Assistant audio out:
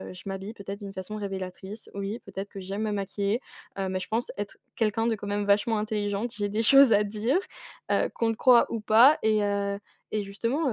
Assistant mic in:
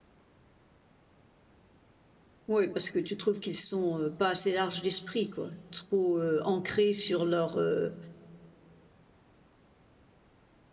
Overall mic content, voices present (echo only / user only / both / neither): user only